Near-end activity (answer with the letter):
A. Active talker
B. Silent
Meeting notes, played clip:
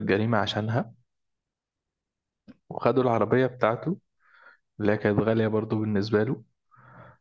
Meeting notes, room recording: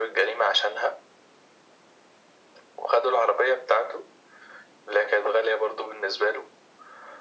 B